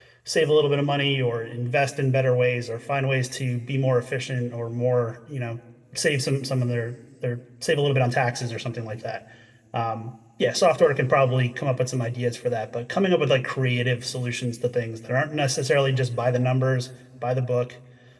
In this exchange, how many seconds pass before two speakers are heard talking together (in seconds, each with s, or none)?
none